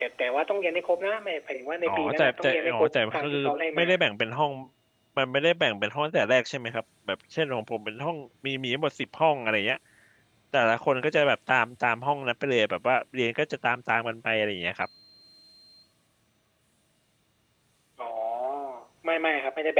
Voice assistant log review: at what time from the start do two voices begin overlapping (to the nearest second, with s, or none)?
2 s